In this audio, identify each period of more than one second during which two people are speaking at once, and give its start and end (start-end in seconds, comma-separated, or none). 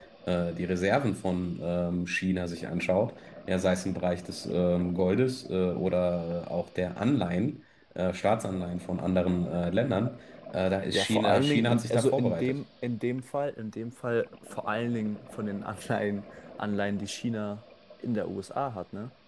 10.9-12.5